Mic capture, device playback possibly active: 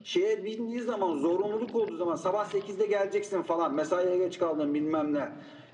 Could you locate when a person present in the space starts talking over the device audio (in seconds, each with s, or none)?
none